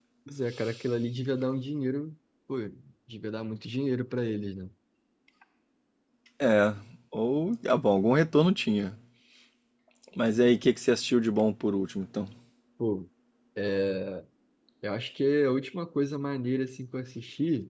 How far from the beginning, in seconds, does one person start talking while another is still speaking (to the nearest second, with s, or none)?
none